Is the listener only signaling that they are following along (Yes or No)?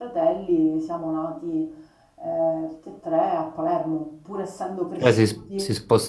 No